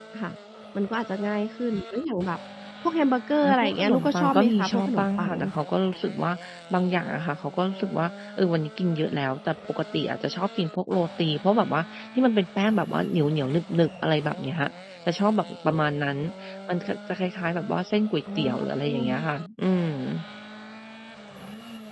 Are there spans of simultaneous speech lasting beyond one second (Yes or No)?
Yes